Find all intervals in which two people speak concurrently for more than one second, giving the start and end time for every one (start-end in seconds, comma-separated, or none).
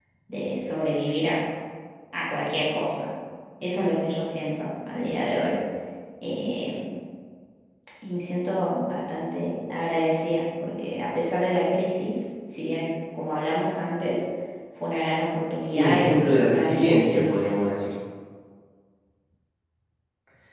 15.7-17.4